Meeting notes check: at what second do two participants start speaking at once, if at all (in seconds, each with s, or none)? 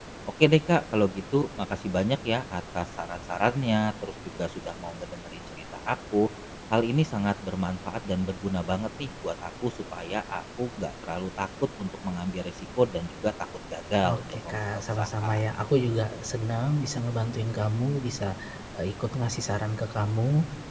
14.0 s